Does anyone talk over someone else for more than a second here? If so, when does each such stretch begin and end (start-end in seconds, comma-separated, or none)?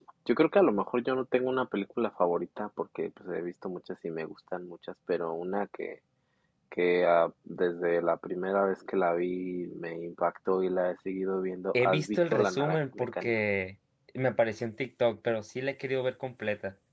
11.7-13.3